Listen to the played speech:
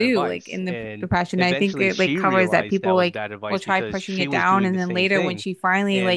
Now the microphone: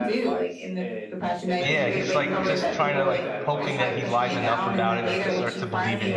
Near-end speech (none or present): present